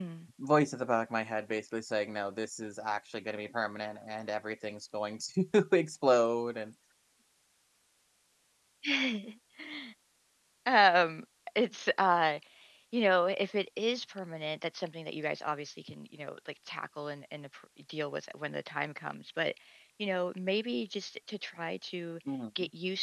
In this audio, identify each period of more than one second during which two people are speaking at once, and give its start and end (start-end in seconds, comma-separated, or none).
none